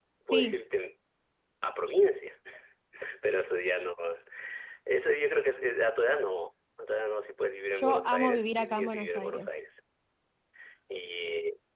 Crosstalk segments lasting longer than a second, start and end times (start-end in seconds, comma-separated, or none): 7.7-9.5